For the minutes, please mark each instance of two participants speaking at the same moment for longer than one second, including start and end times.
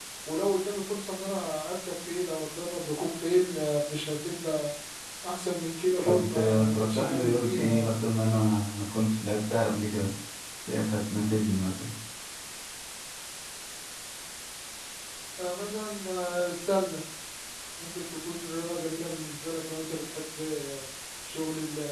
6.0-7.9

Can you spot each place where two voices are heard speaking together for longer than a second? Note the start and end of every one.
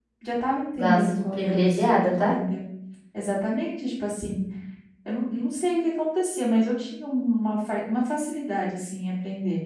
0.8-2.3

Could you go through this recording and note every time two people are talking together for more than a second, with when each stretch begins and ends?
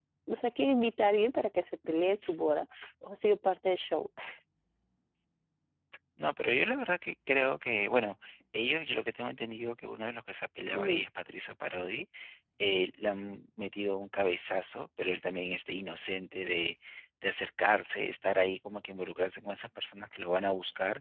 none

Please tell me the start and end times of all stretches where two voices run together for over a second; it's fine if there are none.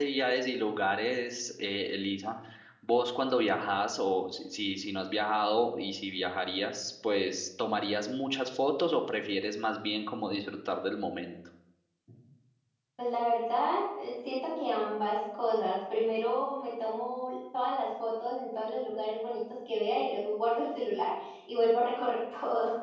none

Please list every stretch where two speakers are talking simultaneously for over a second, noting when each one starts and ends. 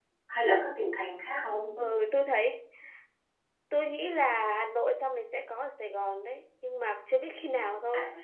none

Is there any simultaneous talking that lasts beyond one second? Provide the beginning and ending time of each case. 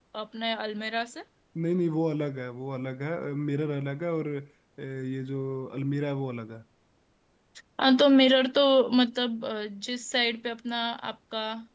none

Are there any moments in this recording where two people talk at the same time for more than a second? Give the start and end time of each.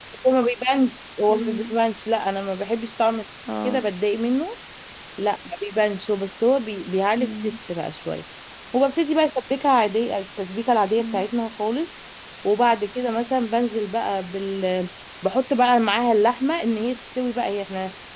none

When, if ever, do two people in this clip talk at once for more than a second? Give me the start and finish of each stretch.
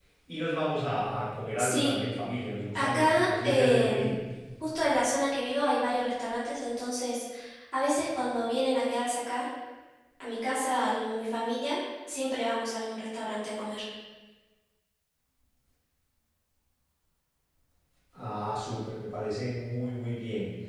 2.8-4.1

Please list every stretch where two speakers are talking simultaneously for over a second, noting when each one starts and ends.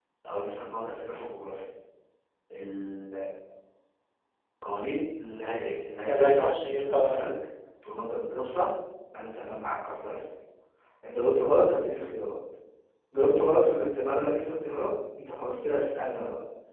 6.1-7.3

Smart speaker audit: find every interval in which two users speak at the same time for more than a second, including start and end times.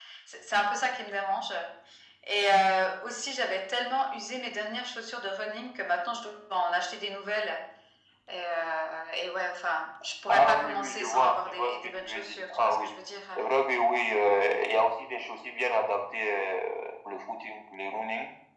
10.3-12.9

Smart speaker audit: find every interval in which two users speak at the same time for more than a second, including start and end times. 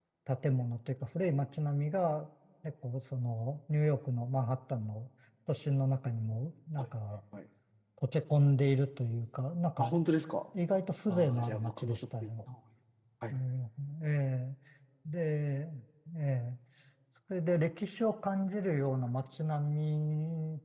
11.1-12.3

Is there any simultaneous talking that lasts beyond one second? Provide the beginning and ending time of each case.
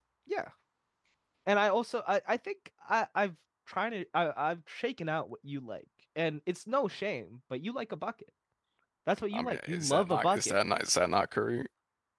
9.3-10.6

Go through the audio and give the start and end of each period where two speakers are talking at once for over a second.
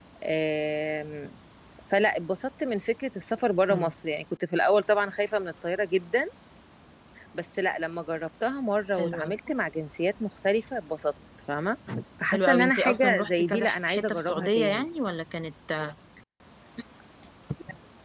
12.3-14.9

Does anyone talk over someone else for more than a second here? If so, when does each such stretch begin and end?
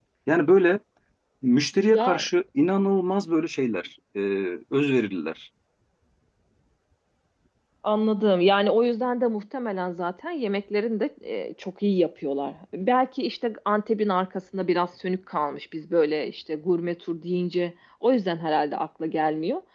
none

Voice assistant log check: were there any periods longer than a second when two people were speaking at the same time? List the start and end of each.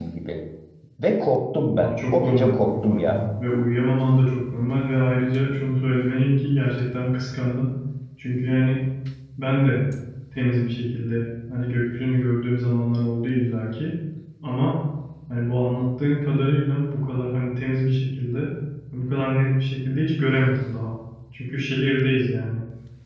1.7-3.2

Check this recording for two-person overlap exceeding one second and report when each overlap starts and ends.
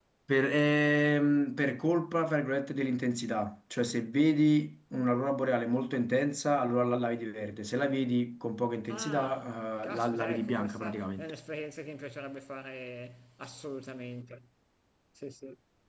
8.9-11.3

